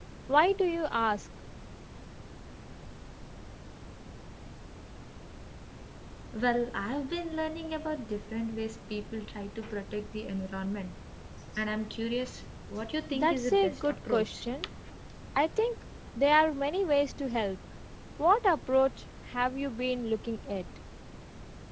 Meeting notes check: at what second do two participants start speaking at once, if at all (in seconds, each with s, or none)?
13.1 s